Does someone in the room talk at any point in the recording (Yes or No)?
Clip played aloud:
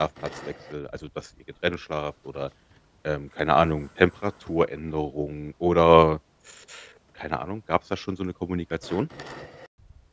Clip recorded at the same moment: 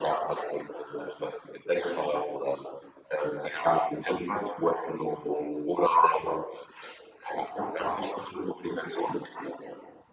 No